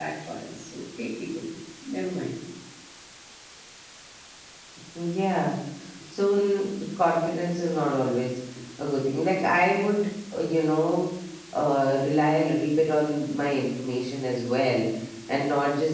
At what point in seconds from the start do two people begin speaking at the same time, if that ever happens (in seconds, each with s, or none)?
none